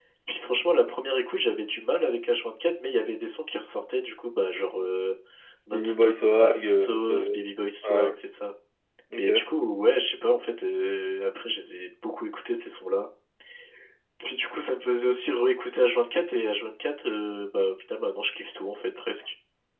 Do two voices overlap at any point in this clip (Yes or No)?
Yes